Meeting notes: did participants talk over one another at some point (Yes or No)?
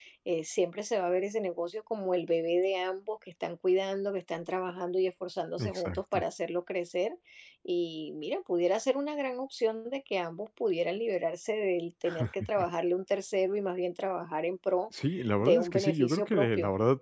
Yes